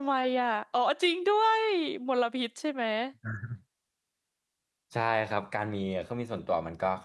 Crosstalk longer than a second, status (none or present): none